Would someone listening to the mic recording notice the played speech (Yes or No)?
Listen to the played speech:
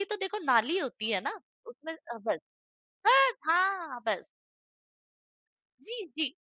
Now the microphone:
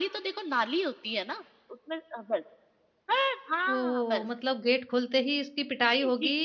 Yes